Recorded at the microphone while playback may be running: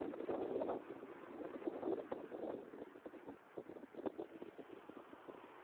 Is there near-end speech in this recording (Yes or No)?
No